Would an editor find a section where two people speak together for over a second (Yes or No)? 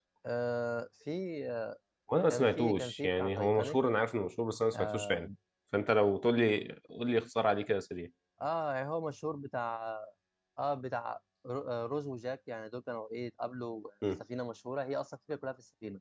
Yes